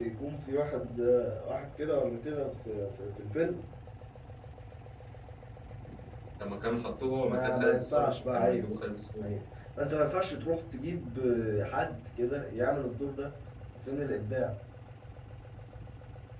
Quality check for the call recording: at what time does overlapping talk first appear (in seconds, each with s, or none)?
7.2 s